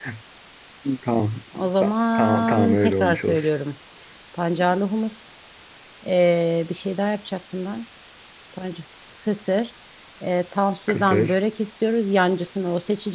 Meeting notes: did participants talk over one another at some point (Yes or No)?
Yes